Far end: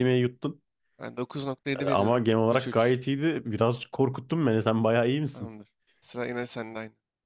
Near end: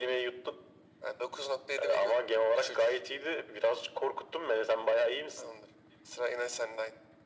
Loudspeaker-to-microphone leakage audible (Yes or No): Yes